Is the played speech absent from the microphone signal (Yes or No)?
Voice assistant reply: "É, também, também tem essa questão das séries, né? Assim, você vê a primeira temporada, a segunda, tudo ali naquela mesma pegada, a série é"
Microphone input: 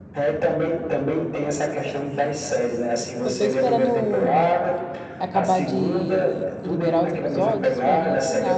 No